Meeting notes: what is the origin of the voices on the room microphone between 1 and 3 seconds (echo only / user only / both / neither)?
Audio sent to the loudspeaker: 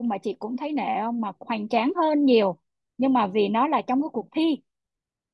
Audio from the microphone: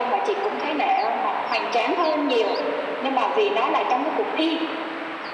echo only